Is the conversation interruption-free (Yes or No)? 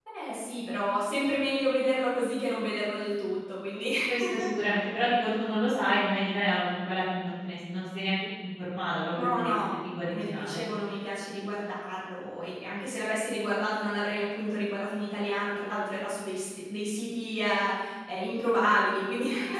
No